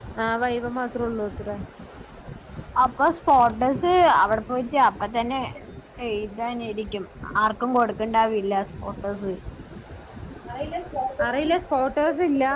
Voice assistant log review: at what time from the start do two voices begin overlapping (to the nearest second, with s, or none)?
none